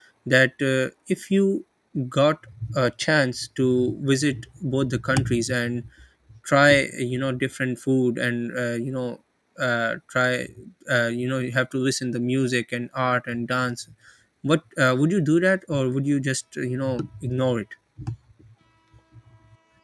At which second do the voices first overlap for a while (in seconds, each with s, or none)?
none